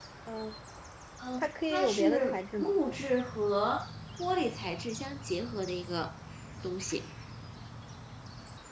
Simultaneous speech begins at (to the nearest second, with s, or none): 1 s